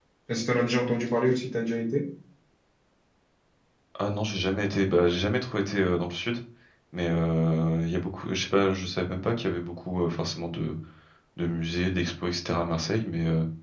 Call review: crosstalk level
none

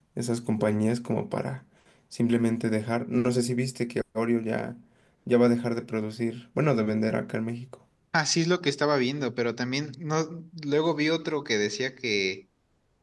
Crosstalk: none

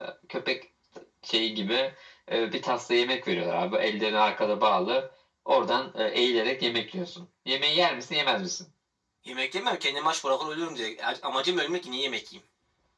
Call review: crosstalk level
none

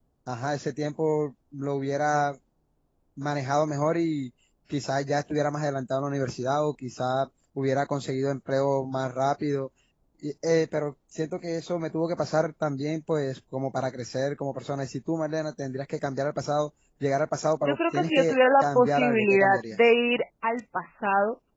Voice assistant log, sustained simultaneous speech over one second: present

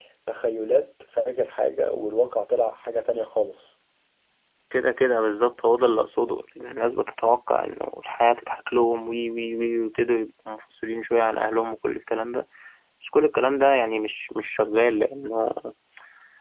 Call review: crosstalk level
none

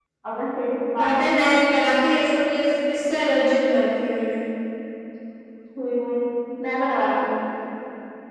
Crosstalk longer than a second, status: none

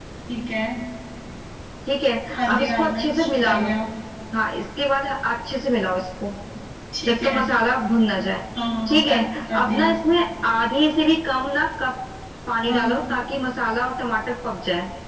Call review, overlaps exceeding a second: present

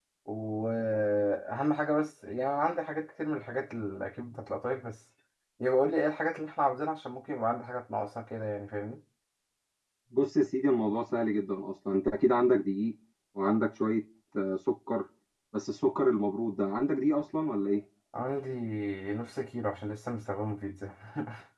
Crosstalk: none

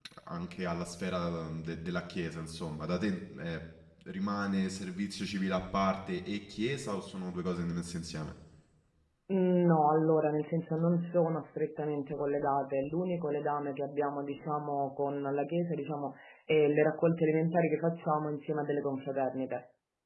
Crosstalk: none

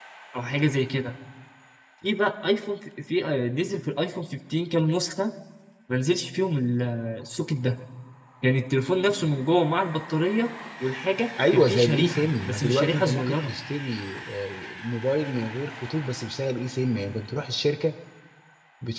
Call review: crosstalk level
present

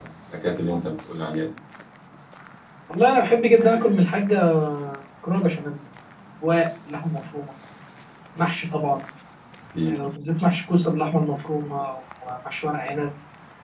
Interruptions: none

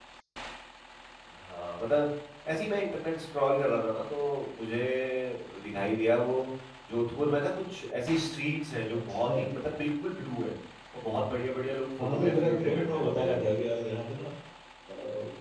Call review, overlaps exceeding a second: present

